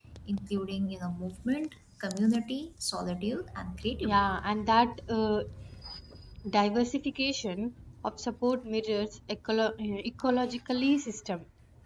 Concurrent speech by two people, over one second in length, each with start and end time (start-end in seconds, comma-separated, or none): none